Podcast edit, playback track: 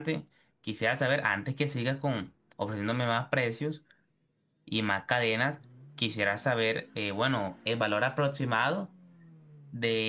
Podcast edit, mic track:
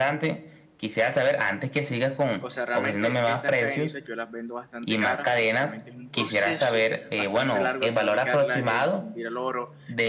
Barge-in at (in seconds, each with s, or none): 2.4 s